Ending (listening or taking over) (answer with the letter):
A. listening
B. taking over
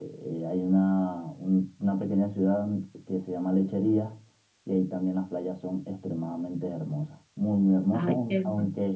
A